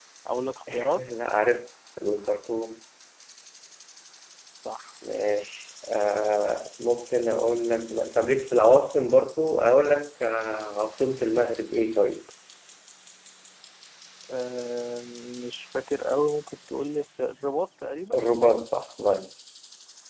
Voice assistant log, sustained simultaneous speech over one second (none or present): none